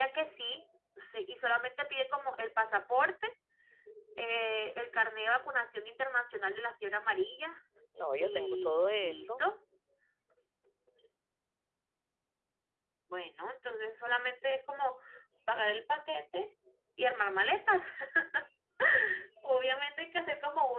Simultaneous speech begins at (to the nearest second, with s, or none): 8 s